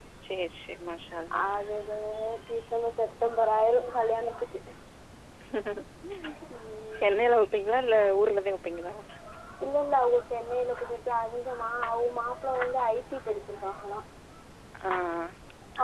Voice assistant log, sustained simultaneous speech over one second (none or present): none